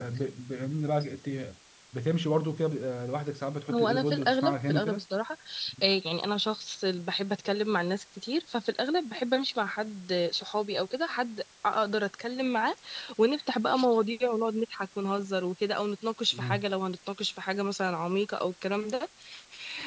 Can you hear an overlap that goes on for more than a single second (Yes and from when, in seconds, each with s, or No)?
Yes, from 3.7 s